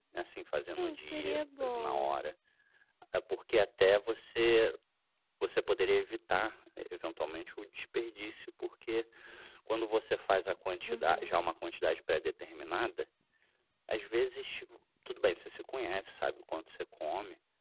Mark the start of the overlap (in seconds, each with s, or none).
0.8 s